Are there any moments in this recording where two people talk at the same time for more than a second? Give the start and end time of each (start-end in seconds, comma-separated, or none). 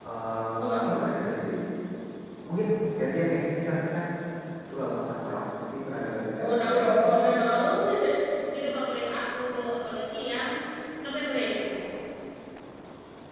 6.4-7.6